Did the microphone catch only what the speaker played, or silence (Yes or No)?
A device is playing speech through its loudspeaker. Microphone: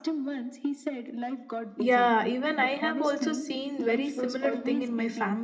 No